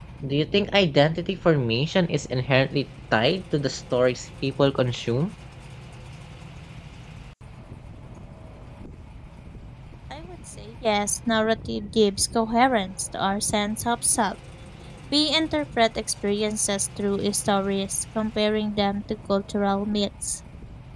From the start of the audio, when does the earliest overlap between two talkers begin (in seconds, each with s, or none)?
none